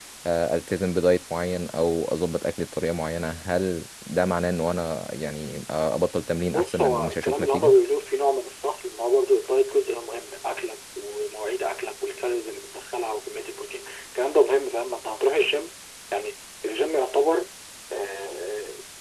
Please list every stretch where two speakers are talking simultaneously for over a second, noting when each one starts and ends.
6.5-7.8

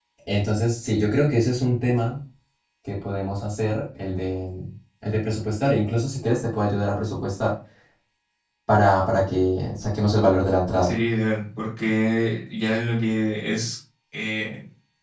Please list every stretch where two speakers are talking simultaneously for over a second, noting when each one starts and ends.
none

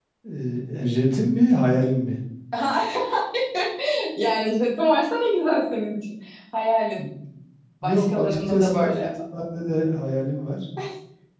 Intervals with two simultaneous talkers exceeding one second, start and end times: 7.8-9.1

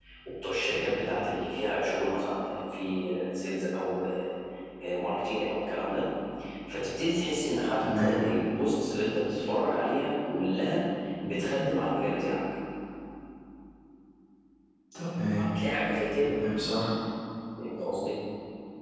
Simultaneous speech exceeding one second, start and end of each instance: none

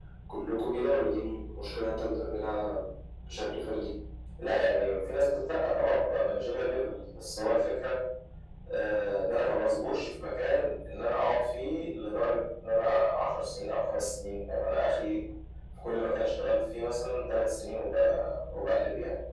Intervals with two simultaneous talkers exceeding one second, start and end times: none

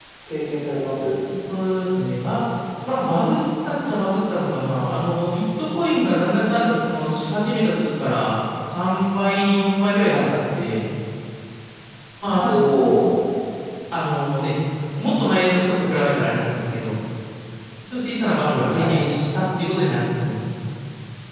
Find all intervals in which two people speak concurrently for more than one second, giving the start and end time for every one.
none

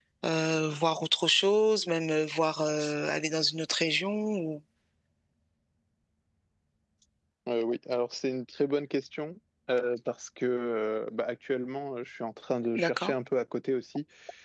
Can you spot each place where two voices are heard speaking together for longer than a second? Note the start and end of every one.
none

